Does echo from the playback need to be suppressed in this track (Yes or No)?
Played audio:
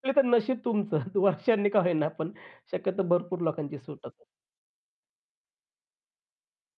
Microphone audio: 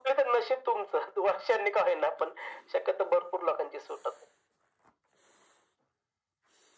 Yes